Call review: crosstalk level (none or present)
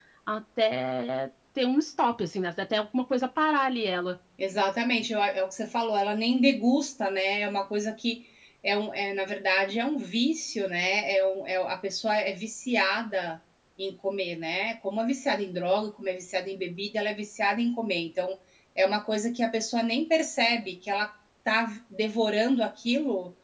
none